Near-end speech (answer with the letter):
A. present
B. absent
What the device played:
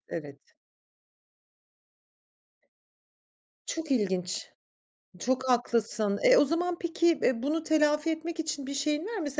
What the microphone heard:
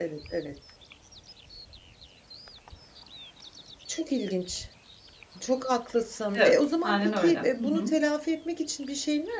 A